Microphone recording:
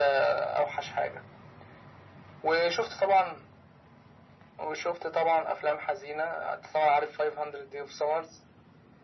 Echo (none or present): present